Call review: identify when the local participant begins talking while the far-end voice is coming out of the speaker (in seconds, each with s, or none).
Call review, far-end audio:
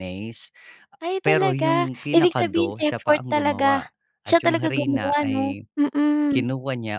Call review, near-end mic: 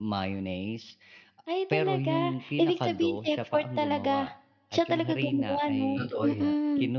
6.0 s